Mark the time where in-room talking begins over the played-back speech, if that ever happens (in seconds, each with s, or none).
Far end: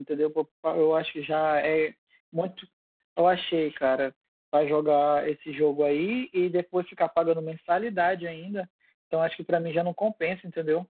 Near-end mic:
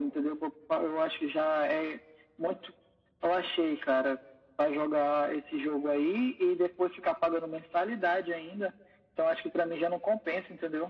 none